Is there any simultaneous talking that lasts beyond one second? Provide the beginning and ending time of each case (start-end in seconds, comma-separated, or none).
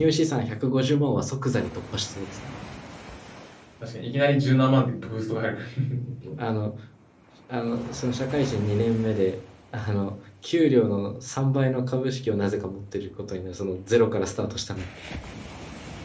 none